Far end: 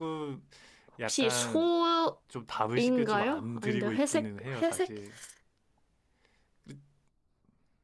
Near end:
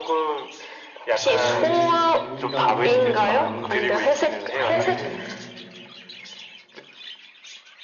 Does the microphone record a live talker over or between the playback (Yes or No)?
Yes